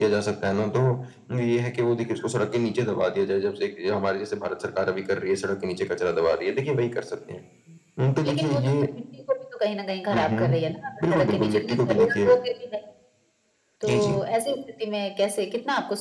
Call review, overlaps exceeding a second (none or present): present